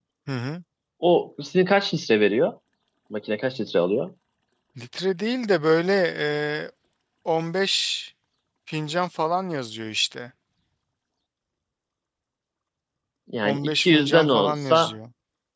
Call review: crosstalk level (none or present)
present